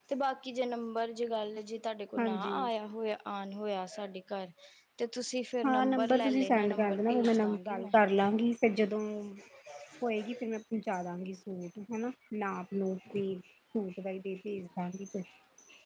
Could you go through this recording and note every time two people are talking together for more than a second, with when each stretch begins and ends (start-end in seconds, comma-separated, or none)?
5.7-7.9